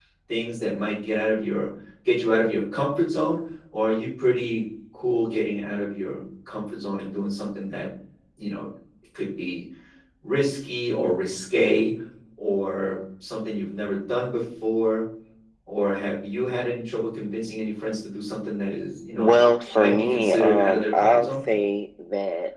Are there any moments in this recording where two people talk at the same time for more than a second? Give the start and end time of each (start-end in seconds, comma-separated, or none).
19.8-21.3